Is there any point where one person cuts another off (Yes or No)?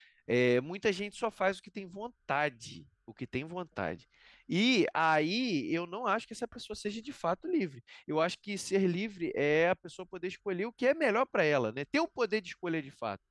No